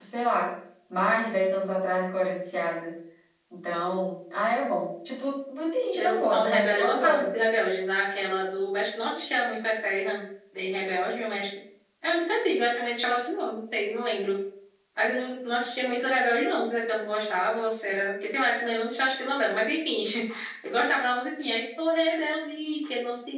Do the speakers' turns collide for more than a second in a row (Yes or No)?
Yes